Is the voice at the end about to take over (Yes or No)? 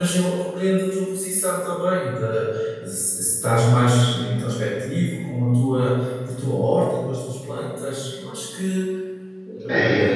Yes